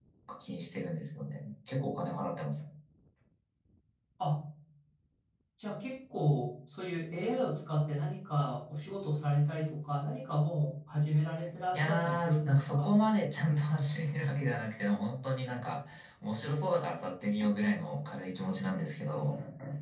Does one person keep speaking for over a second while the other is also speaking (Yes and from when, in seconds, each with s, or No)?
Yes, from 11.7 s